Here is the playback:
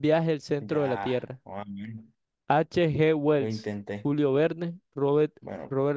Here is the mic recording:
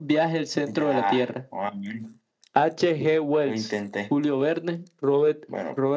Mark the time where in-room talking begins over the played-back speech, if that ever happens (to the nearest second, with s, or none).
none